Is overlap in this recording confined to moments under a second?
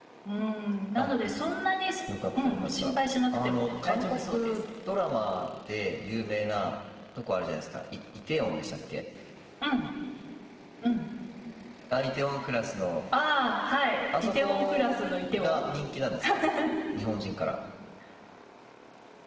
No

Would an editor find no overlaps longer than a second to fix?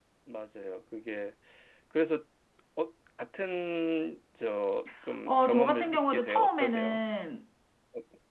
No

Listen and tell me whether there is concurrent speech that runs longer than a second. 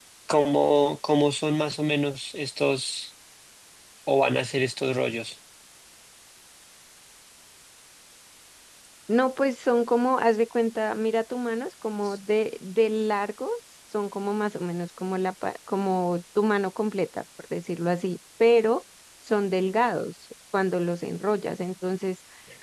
No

